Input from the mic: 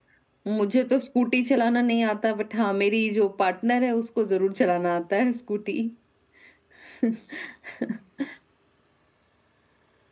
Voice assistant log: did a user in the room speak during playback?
Yes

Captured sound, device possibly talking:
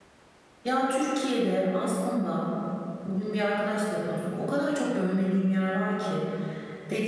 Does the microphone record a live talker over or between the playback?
Yes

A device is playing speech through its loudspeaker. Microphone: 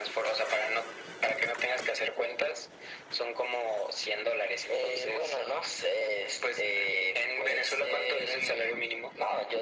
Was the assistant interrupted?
No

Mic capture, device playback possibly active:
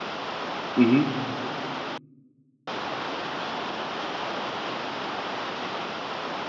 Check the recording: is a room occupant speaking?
Yes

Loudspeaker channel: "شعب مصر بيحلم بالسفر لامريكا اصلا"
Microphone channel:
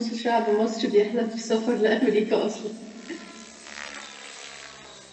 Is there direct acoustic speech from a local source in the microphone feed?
No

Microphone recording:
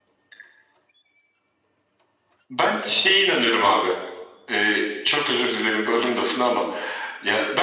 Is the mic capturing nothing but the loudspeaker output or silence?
Yes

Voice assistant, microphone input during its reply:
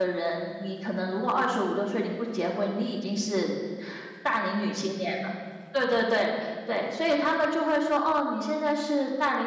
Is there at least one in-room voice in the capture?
Yes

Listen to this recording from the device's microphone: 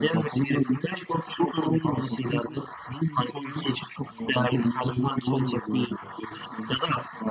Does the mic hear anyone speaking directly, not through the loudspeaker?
No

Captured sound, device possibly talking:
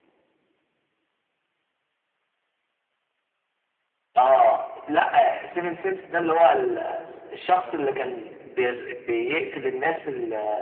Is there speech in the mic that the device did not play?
Yes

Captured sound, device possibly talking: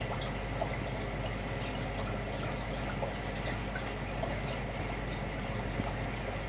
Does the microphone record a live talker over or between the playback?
No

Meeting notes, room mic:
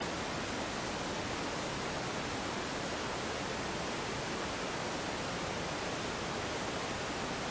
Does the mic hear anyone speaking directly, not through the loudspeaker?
No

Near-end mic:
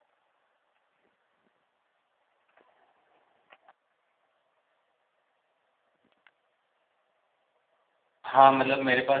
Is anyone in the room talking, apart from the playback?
Yes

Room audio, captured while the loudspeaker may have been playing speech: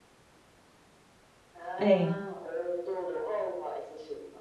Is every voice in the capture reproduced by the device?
No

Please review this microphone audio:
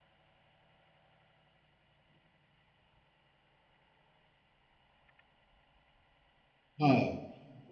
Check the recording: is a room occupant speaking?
Yes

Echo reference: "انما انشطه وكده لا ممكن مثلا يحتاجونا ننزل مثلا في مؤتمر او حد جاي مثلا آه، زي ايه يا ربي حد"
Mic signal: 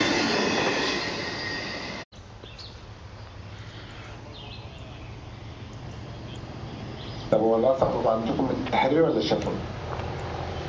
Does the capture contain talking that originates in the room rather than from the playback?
Yes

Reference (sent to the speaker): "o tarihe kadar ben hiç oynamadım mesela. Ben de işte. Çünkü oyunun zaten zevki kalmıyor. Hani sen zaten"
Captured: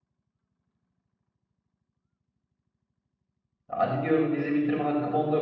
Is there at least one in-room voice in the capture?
Yes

